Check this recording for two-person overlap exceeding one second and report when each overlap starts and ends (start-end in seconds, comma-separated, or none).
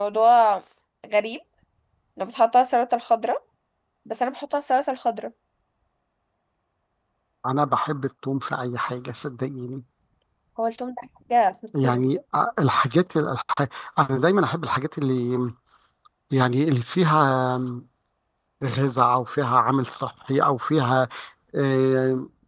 none